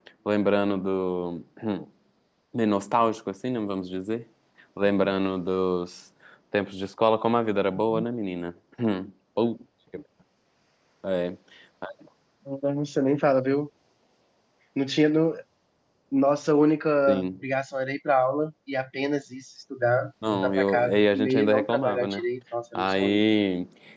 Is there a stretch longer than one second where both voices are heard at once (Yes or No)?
Yes